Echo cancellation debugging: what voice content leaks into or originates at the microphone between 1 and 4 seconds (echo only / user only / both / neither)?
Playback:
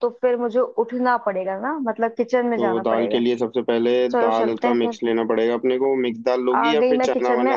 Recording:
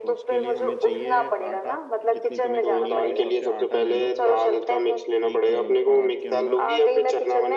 both